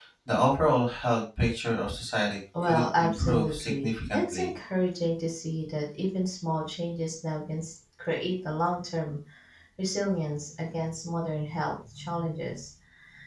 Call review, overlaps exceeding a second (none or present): present